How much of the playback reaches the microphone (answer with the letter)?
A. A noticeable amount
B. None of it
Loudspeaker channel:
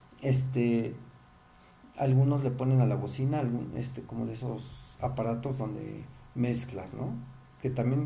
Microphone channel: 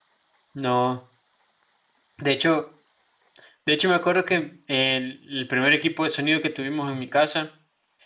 B